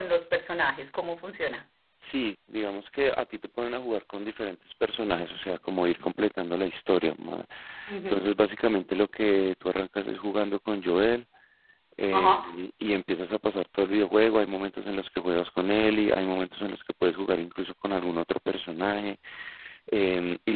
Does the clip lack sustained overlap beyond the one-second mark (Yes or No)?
Yes